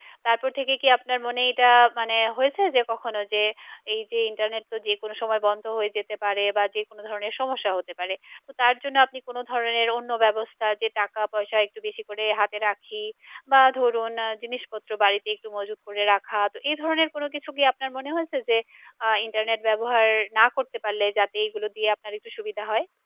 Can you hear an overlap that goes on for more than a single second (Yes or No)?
No